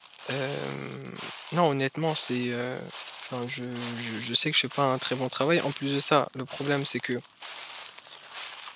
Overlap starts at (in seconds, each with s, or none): none